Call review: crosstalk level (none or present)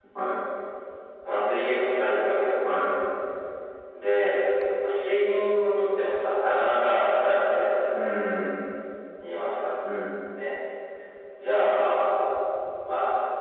none